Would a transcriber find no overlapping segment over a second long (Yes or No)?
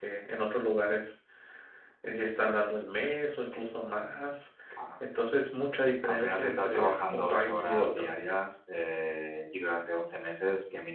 No